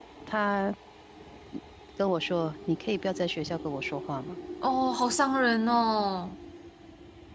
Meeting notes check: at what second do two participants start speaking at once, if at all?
none

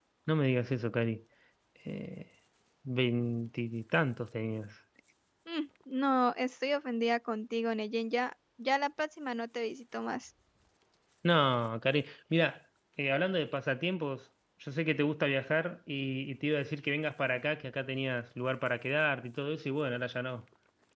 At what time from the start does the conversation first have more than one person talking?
none

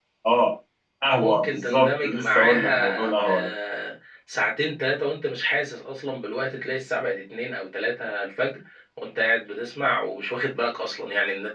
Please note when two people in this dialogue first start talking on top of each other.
1.2 s

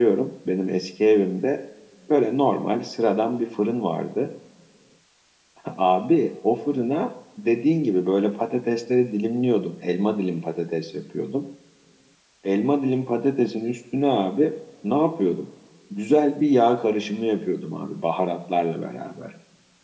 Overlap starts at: none

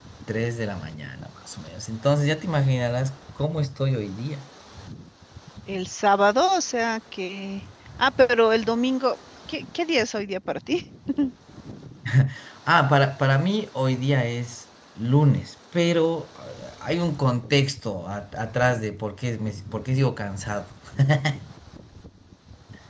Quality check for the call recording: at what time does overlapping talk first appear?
none

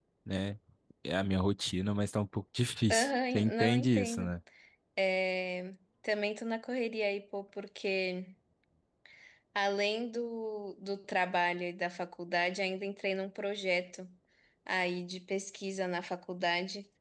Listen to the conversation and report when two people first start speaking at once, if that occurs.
2.9 s

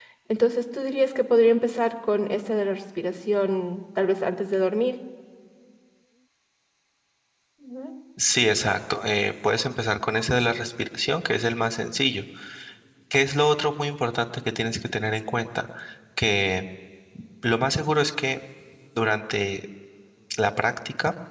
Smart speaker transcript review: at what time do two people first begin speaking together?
none

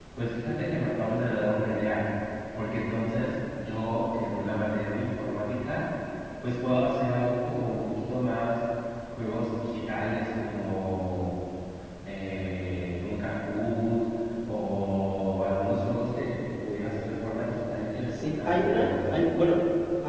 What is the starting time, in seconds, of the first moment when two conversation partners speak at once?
18.1 s

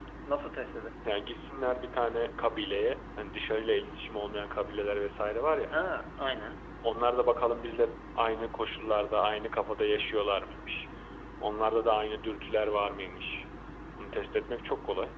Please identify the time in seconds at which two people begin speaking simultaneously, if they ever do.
none

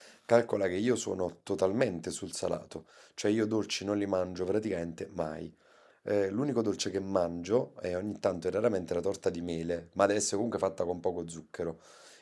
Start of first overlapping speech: none

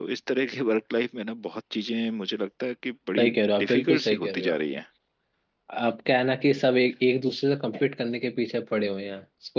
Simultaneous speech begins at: 3.2 s

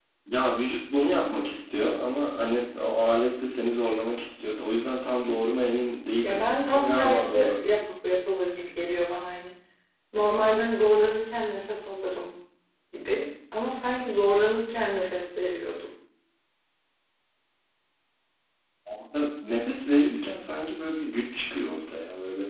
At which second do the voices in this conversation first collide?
6.2 s

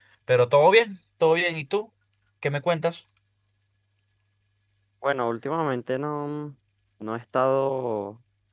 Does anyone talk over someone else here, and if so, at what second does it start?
none

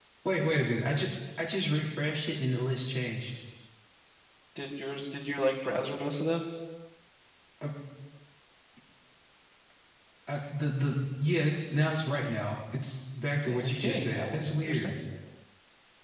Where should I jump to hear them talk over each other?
13.4 s

